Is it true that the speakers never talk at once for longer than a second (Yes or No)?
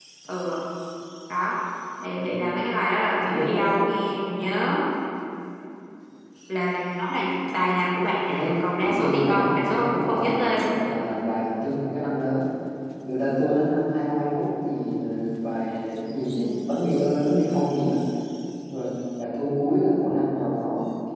No